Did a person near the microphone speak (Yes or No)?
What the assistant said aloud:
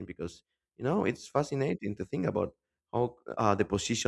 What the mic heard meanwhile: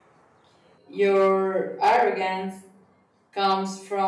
Yes